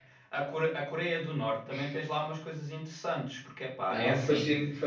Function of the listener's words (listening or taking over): taking over